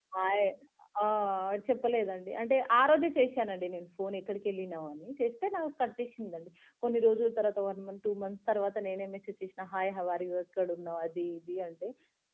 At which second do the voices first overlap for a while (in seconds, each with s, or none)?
none